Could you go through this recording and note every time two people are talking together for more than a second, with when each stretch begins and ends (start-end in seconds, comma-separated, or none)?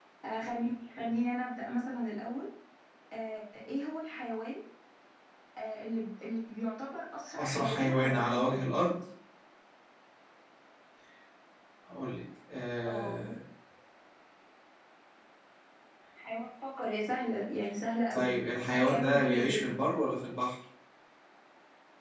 7.4-8.6, 18.1-19.8